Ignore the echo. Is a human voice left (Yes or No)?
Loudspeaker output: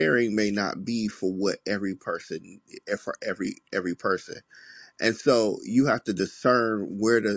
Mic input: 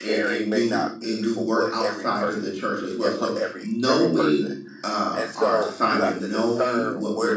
Yes